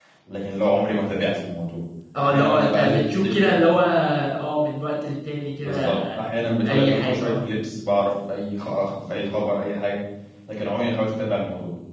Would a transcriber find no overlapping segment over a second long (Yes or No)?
No